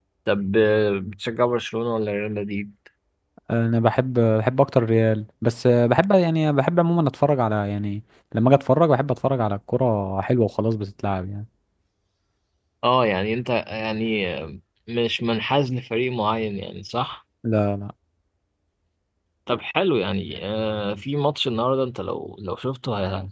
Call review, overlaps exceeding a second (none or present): none